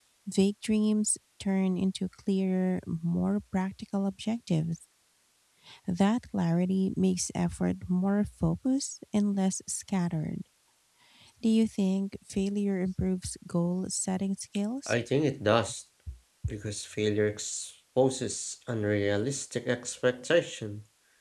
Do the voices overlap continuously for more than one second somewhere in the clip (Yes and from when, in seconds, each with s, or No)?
No